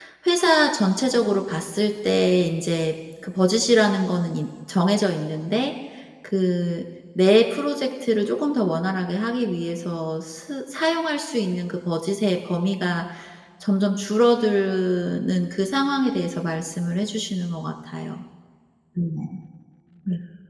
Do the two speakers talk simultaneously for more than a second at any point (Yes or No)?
No